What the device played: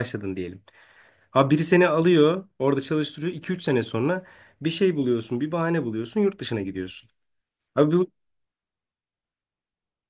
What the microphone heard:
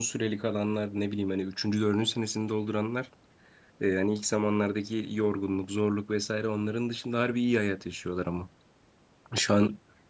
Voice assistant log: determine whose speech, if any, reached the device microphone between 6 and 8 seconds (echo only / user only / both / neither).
user only